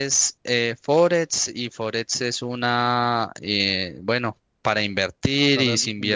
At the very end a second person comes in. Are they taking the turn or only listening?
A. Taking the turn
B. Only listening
B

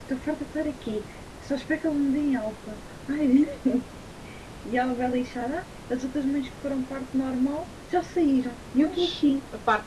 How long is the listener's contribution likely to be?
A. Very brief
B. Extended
B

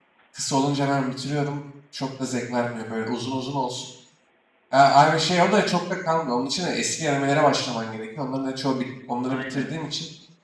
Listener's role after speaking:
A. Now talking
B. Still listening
B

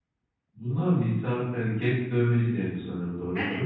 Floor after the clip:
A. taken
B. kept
A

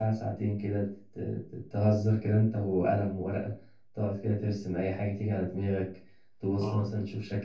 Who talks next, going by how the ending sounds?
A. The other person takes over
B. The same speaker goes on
B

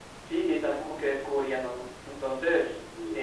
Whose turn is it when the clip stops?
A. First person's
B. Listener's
A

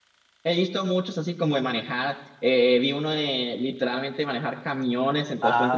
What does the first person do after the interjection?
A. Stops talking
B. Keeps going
B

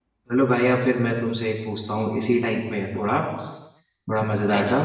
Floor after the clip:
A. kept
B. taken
A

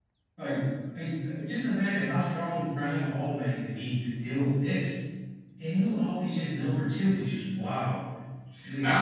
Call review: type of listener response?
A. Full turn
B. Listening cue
A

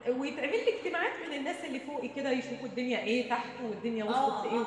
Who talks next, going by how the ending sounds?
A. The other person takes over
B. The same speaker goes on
A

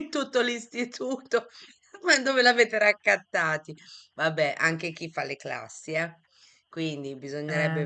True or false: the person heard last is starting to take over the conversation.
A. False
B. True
A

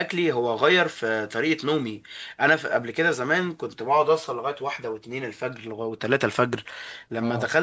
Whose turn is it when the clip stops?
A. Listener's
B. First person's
B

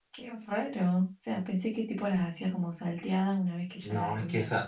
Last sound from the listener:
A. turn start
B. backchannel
A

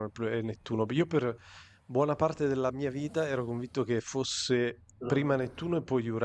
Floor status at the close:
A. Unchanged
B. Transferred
A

